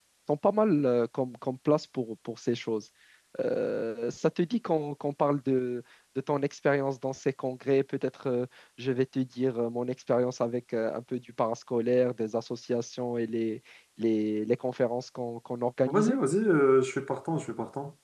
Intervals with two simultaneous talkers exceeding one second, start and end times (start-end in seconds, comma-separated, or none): none